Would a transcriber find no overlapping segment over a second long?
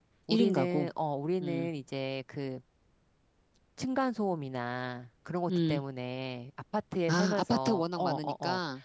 No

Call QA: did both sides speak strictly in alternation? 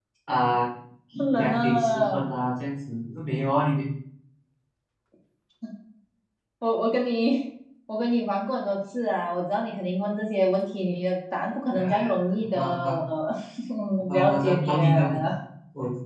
No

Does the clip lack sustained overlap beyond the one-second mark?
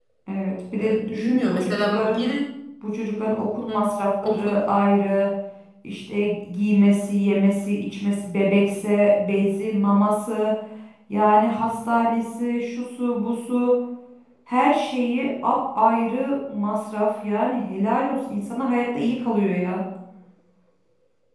No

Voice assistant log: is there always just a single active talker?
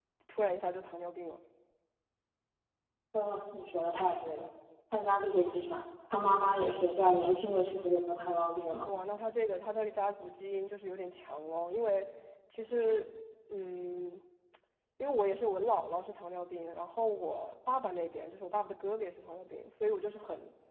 Yes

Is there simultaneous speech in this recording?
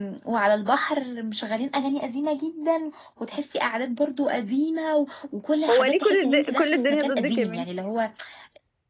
Yes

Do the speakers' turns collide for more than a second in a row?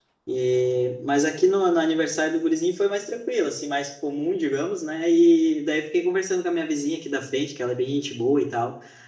No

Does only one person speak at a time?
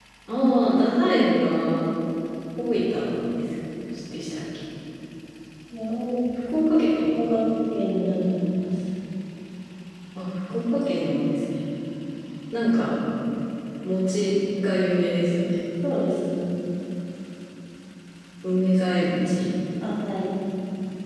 Yes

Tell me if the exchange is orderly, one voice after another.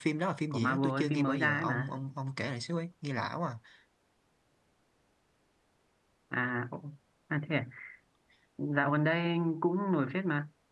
No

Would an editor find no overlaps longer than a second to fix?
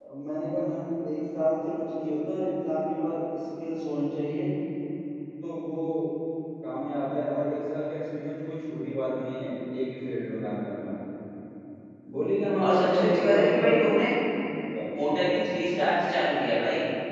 No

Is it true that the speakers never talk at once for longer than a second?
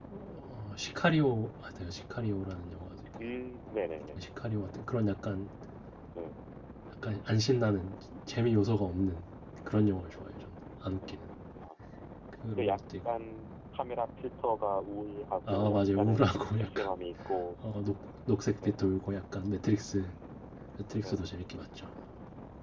No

